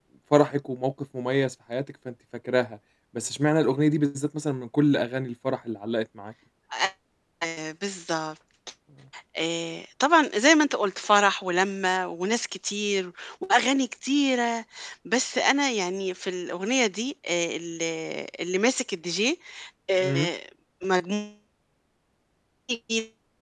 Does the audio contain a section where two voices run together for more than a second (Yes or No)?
No